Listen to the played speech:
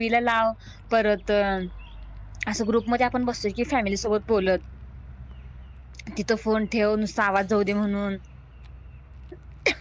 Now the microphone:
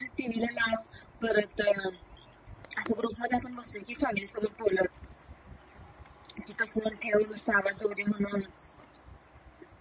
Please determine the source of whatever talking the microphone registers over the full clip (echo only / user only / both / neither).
echo only